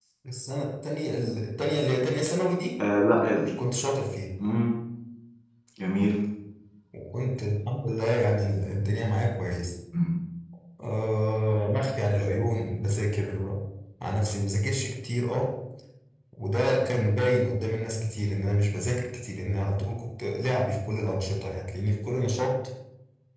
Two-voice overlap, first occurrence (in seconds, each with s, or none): none